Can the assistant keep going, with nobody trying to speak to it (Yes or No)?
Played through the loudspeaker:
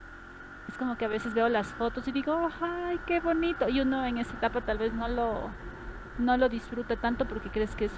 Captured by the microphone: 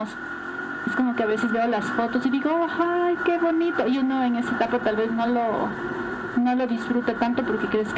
Yes